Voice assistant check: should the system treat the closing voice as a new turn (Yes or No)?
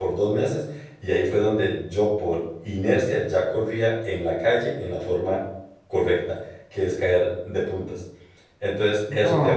No